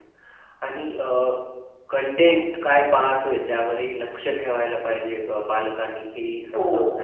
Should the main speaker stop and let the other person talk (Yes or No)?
No